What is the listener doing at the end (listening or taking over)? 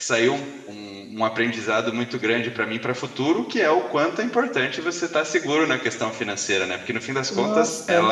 listening